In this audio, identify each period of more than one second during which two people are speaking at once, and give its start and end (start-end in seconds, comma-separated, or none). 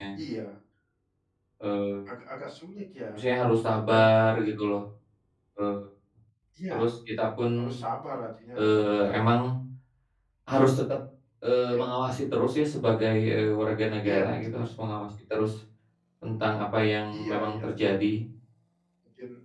none